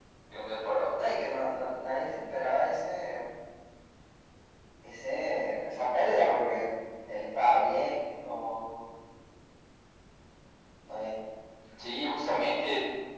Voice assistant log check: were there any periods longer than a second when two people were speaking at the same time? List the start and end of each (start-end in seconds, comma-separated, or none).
none